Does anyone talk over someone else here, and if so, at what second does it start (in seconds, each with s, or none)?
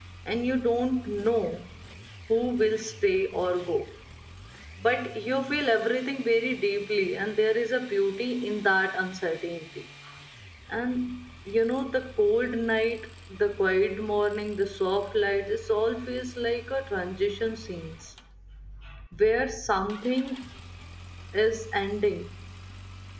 none